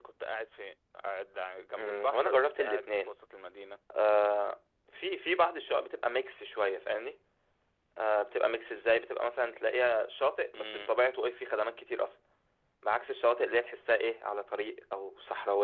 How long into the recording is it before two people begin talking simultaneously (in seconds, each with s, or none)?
1.8 s